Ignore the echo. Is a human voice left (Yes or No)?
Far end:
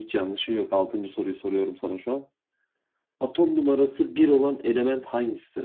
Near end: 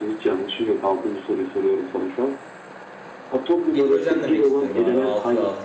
Yes